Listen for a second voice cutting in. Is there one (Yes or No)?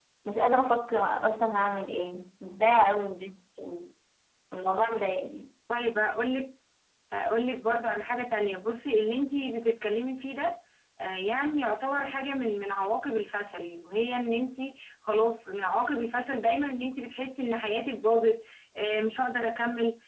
No